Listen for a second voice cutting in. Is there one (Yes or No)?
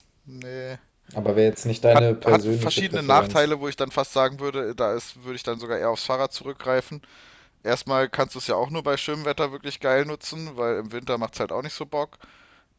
Yes